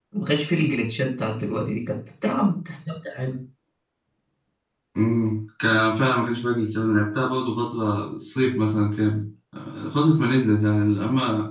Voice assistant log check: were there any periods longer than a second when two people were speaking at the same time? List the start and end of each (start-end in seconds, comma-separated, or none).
none